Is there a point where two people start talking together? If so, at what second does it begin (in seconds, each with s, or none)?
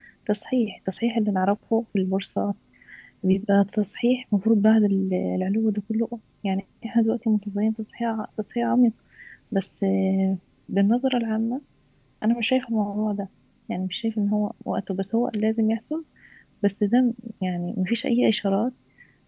none